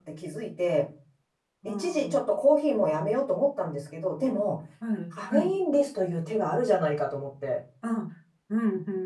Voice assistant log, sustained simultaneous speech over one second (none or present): none